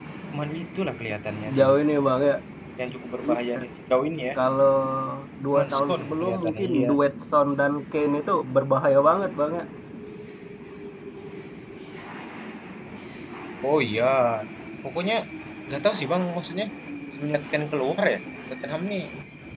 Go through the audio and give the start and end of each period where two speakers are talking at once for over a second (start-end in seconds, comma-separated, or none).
5.5-6.9